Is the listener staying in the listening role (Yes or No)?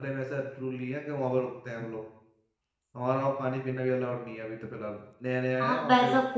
No